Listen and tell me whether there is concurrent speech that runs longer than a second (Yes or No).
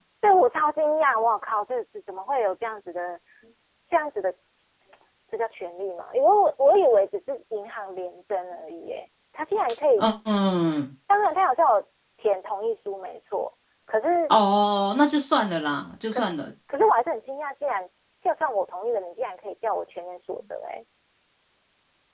No